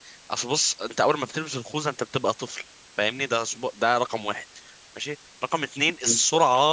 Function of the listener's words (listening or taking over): listening